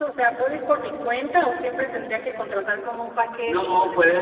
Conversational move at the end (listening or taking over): taking over